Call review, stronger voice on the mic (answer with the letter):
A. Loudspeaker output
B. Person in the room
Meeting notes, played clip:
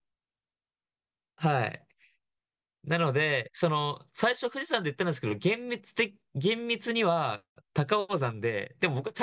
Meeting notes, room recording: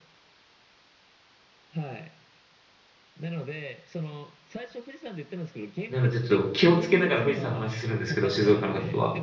B